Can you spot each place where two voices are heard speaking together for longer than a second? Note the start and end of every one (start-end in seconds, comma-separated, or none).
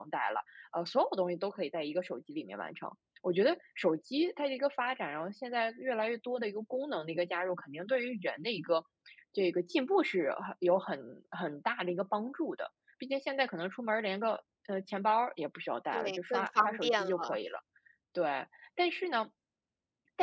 15.9-17.4